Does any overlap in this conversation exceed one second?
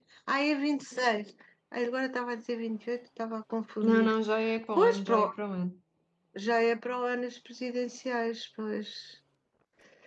No

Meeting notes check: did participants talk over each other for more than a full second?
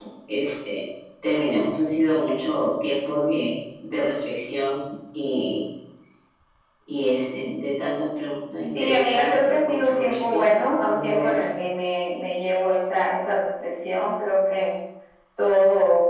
Yes, from 8.7 s

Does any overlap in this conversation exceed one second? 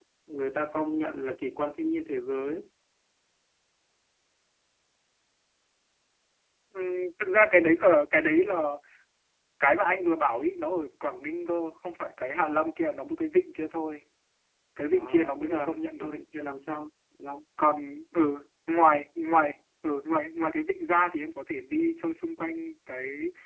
Yes, from 14.9 s

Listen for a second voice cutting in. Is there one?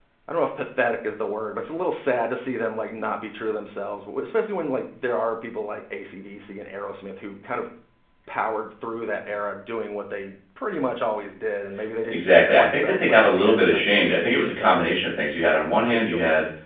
Yes, from 12.1 s

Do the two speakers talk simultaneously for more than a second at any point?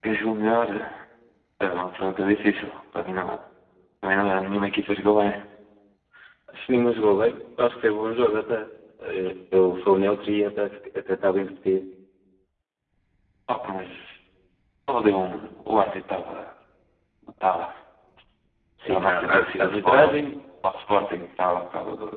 Yes, from 18.9 s

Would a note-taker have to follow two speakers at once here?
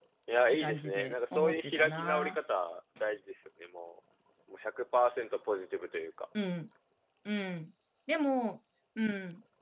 Yes, from 0.5 s

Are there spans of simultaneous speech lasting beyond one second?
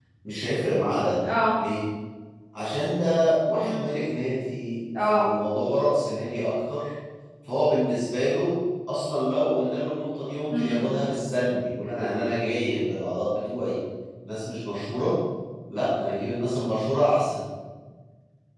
No

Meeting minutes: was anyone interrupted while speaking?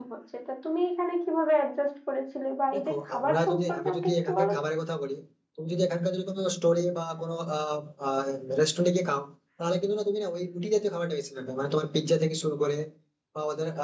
Yes, from 2.7 s

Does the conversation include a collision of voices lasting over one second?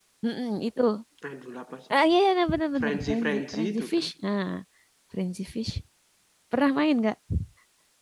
Yes, from 2.8 s

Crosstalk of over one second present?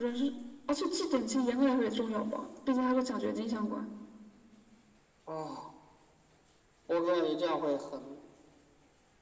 No

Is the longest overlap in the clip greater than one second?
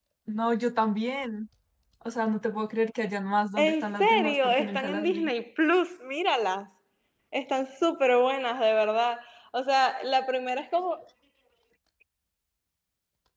Yes, from 3.6 s

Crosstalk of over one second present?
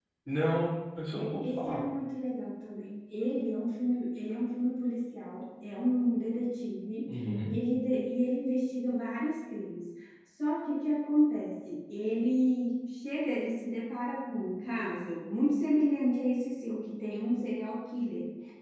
No

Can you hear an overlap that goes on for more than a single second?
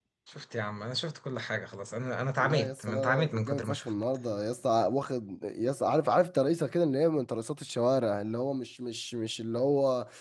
Yes, from 2.4 s

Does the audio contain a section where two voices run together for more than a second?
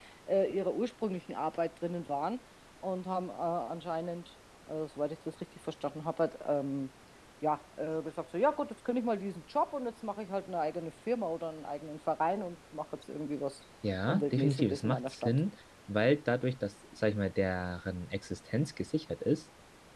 Yes, from 14.1 s

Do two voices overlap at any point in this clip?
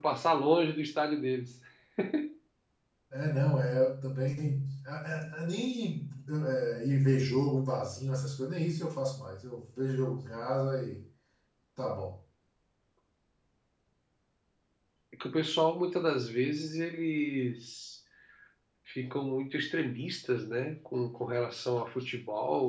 No

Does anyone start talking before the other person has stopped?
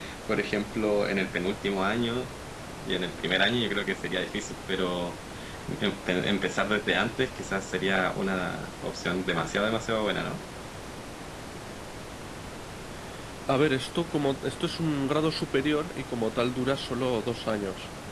No

